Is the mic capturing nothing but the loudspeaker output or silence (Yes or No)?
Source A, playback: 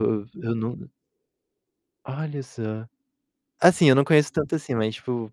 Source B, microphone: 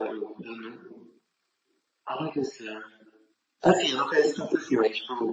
Yes